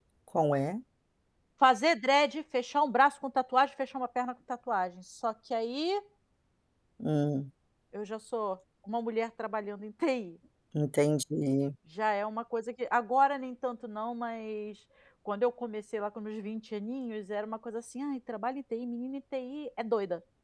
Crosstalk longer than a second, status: none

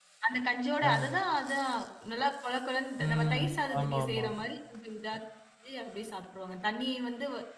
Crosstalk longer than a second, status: present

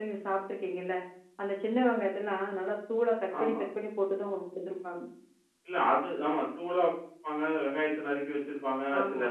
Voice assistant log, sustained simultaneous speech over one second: none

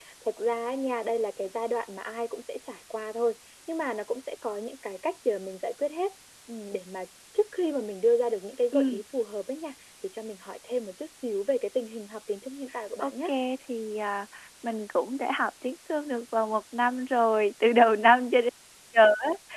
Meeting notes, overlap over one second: none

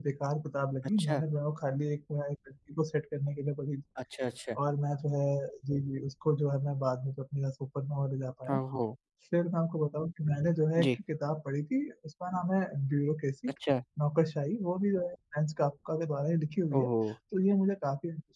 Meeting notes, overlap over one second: none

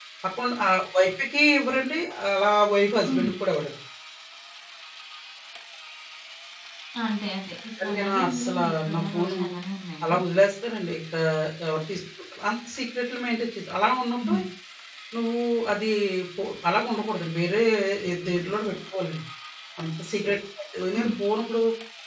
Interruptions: present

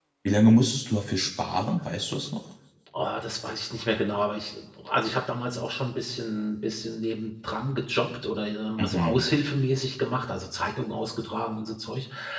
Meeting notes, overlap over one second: none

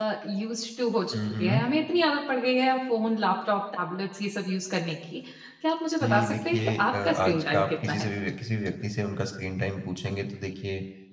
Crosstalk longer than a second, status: present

